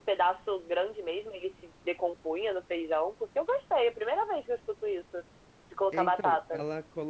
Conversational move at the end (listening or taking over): taking over